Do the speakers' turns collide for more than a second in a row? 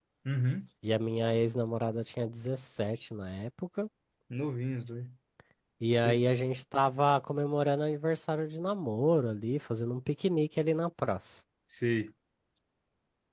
No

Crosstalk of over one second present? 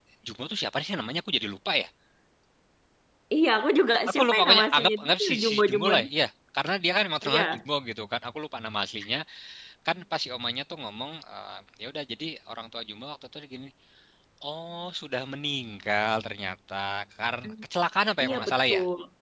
Yes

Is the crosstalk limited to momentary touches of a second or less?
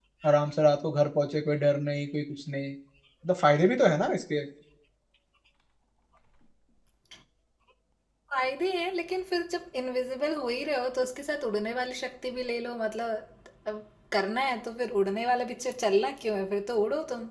Yes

